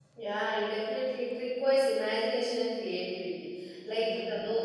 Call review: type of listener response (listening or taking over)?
listening